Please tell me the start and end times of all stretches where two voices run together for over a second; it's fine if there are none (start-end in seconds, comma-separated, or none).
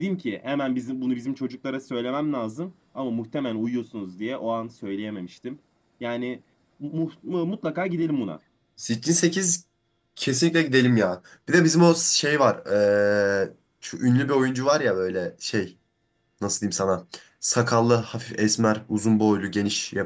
none